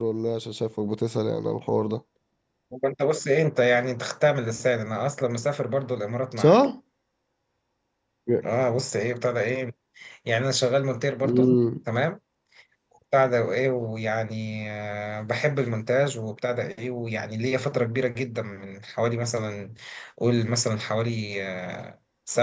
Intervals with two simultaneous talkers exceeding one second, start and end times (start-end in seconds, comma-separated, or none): none